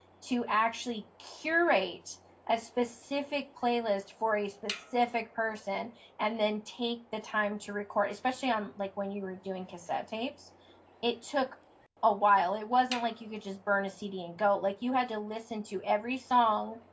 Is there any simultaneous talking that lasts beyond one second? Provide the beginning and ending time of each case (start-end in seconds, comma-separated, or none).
none